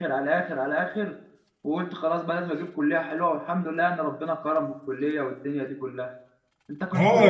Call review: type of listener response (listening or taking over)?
taking over